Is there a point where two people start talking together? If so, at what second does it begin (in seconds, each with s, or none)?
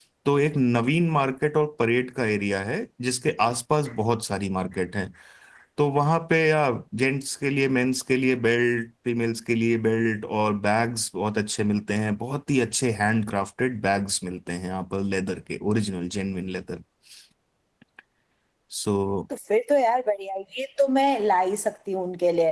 none